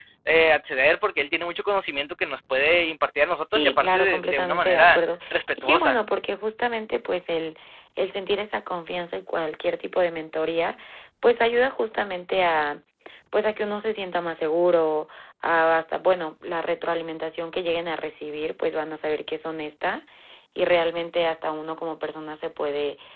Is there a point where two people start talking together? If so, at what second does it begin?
3.5 s

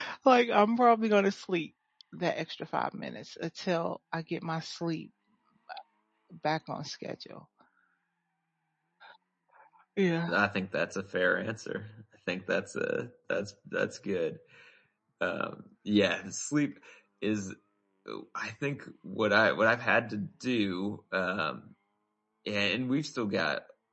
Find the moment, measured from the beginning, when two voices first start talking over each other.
none

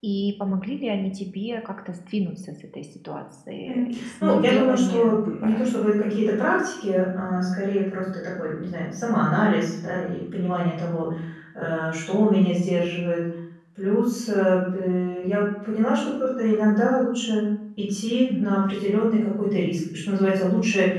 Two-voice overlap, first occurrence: 3.6 s

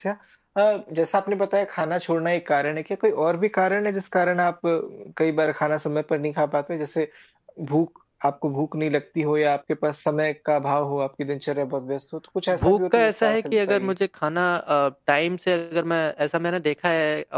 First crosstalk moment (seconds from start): 12.5 s

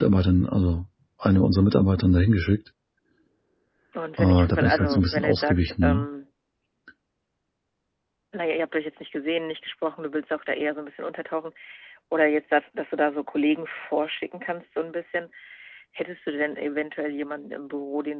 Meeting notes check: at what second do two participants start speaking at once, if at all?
4.2 s

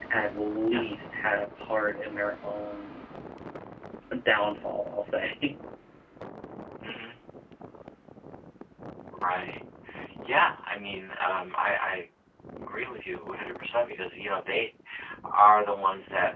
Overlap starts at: none

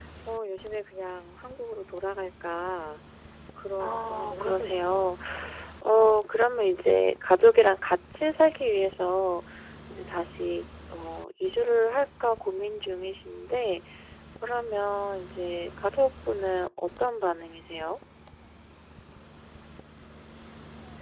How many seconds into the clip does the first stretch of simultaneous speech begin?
3.8 s

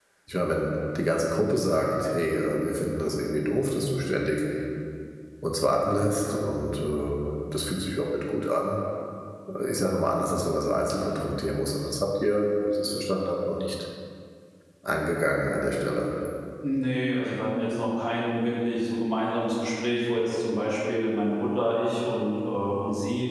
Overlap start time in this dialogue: none

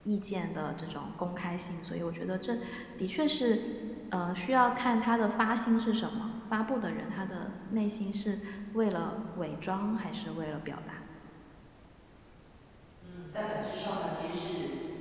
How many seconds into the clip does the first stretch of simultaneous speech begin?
none

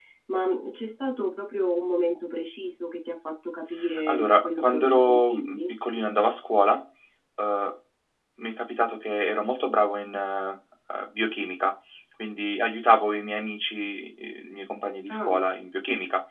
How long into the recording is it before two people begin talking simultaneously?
4.1 s

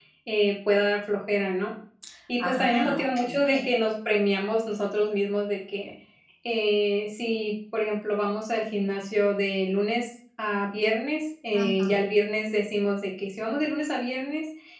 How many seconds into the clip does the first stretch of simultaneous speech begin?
2.4 s

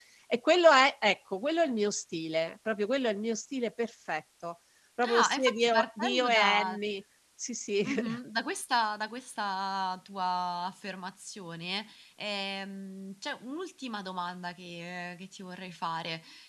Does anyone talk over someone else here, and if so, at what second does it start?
5.0 s

